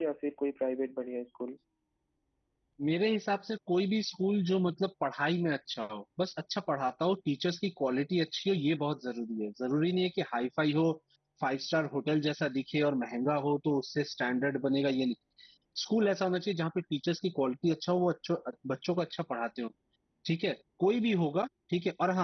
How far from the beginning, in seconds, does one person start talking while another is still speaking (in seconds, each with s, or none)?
none